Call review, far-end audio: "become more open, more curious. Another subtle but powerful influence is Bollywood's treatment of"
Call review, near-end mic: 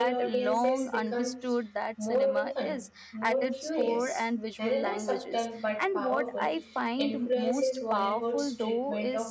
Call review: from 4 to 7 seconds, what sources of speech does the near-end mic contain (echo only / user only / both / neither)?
both